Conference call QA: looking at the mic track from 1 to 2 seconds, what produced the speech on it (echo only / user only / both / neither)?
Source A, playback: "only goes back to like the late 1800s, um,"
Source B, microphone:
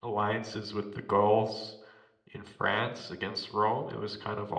user only